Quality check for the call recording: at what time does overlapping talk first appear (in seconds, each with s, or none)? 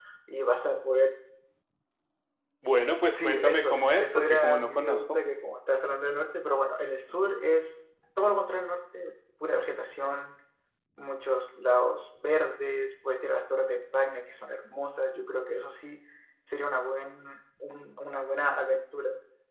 3.1 s